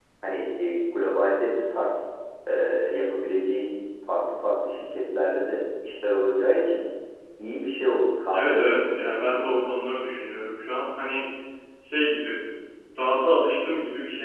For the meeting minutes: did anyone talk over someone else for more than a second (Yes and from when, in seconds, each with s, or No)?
Yes, from 8.3 s